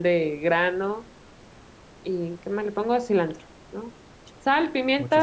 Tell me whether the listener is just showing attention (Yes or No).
Yes